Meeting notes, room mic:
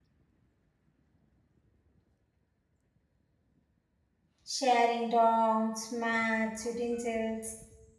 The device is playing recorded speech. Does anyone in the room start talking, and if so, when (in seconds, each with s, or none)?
4.4 s